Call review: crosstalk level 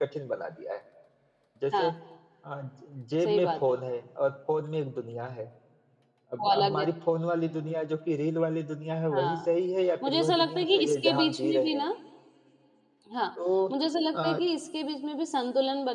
present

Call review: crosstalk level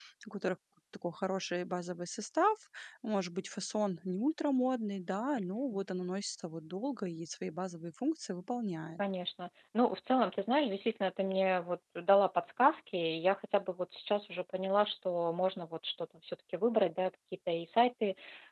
none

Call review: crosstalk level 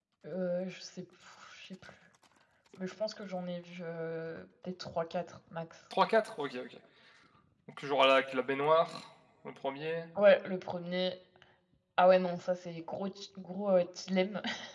none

